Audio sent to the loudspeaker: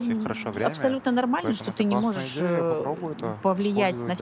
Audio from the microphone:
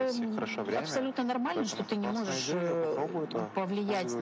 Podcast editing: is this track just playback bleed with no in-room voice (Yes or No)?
Yes